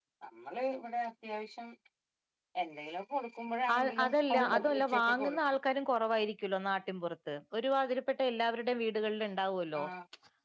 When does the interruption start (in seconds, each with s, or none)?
3.7 s